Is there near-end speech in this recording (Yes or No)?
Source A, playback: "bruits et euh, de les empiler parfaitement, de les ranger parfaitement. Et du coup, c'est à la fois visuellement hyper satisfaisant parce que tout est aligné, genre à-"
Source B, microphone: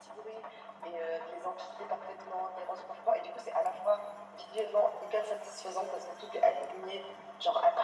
No